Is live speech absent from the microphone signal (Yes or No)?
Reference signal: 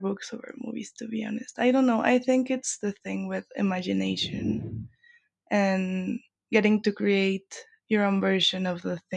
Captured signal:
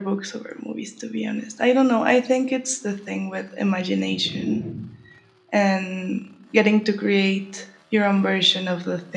Yes